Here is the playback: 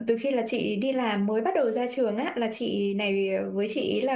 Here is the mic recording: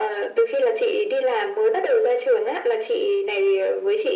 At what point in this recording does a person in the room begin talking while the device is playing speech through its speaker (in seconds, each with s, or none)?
none